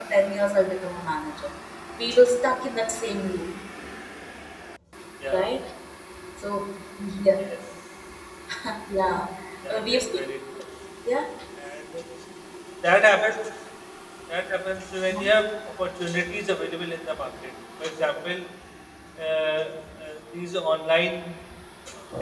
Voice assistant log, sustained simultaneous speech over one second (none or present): none